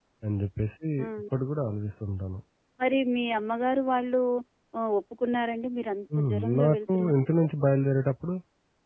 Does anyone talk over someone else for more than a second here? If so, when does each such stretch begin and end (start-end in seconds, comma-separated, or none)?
6.2-7.4